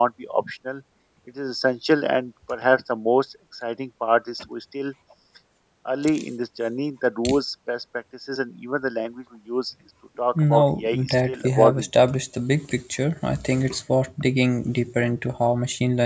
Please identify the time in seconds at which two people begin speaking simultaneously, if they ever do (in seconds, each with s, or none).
10.3 s